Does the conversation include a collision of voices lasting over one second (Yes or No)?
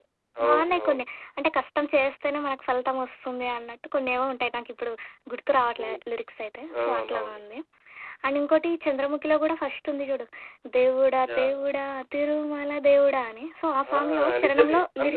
Yes